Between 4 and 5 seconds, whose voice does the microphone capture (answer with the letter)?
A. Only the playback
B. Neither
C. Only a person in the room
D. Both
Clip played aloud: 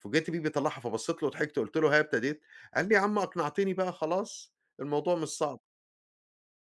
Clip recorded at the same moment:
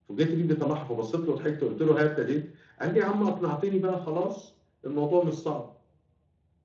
A